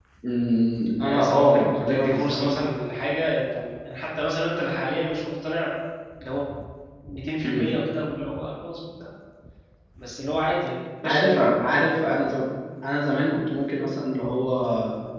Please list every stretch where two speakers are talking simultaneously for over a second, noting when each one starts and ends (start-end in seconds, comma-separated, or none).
1.0-2.5